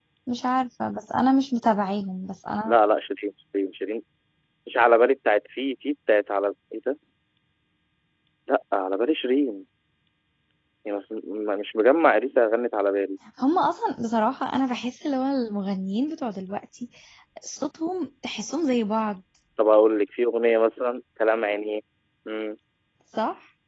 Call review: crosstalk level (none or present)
none